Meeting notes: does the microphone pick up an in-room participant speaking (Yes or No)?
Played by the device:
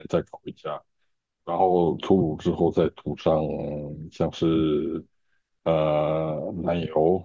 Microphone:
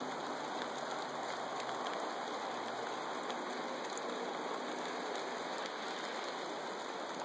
No